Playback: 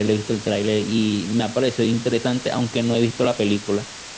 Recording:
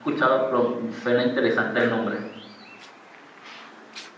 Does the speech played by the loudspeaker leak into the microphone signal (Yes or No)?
No